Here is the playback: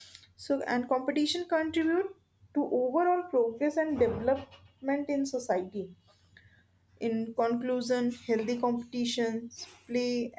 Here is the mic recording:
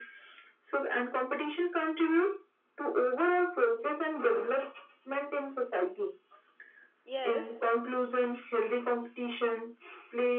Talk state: both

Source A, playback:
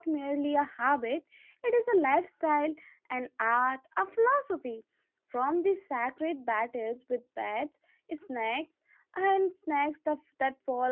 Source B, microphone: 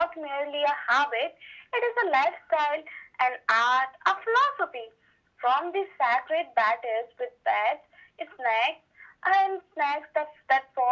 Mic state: echo only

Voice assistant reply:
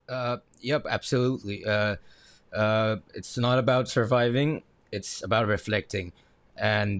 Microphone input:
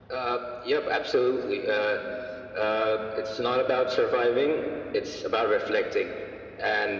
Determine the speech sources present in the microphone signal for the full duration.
echo only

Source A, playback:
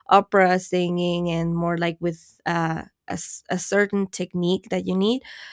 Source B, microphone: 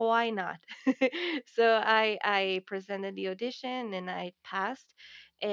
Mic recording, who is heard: user only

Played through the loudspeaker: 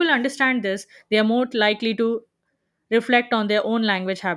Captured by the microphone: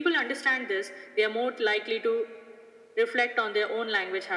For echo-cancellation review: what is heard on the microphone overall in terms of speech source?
echo only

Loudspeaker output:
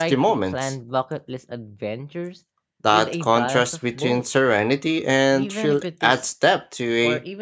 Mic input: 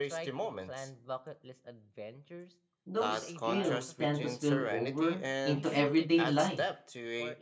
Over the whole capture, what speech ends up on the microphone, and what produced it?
both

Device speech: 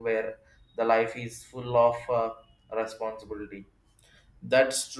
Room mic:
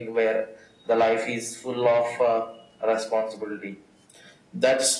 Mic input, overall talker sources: echo only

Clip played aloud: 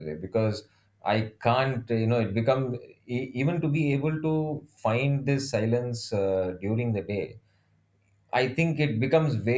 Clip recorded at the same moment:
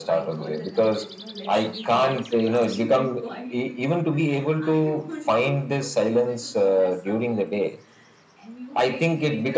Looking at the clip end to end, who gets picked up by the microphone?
both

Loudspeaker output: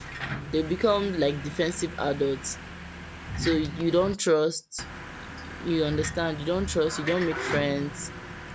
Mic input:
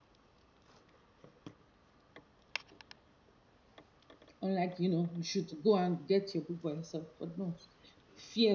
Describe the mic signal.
user only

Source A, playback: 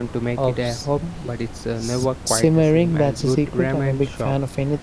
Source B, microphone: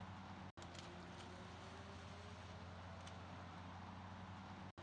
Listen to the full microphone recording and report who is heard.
neither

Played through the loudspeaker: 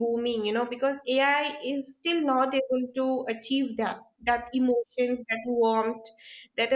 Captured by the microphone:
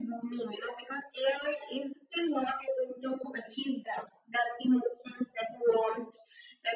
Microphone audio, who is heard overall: echo only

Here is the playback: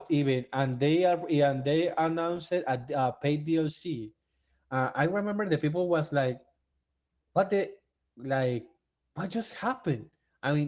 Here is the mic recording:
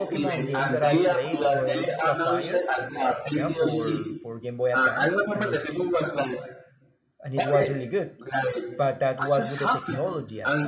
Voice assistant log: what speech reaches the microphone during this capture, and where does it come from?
both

